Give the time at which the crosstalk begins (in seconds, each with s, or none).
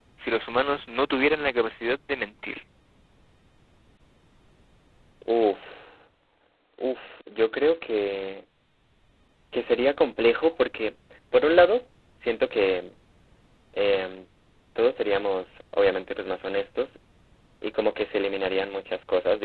none